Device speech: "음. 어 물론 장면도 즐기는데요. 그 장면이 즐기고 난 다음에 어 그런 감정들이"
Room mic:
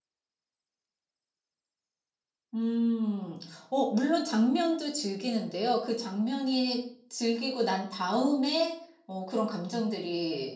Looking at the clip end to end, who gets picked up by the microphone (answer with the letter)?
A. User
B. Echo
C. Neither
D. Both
B